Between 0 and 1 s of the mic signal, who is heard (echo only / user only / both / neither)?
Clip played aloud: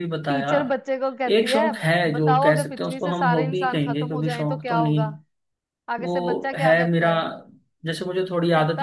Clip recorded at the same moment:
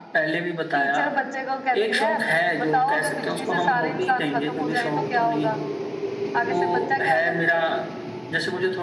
echo only